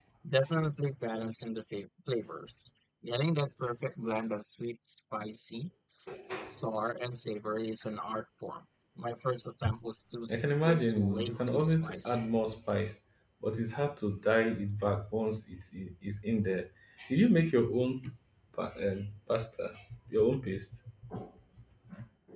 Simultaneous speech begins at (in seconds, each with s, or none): 10.3 s